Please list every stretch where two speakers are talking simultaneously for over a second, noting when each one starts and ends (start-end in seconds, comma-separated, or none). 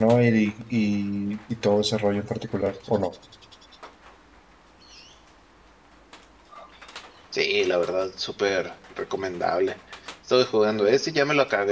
none